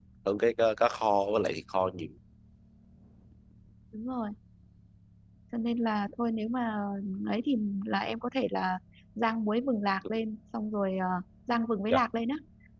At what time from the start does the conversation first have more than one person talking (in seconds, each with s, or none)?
none